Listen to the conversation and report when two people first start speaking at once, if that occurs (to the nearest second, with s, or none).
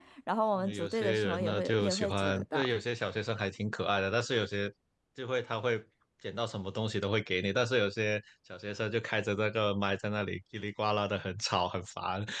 1 s